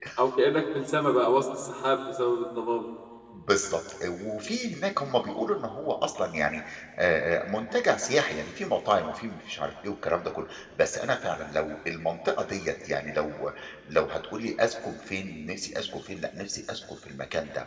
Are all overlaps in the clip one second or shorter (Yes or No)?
Yes